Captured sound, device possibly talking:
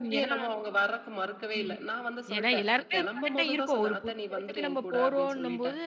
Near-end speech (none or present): present